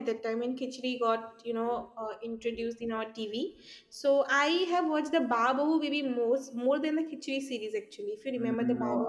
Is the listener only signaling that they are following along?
No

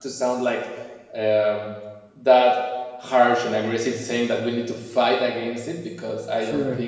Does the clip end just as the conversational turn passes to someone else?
No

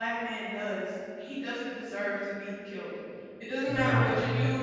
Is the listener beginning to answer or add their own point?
No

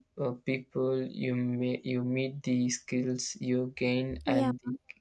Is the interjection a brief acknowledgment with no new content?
Yes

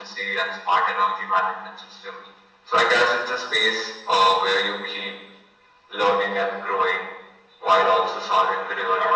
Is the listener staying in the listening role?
Yes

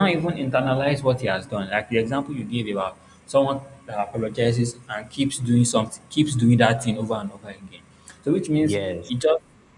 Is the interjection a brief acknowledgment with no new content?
Yes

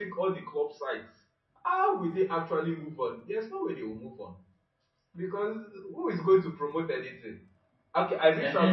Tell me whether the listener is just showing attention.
Yes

